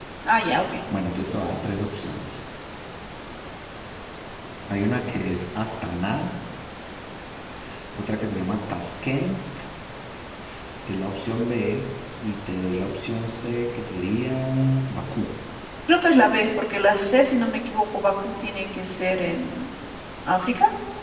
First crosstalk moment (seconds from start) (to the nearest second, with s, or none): none